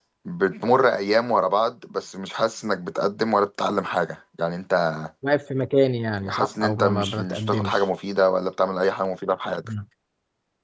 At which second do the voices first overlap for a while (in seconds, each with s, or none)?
6.2 s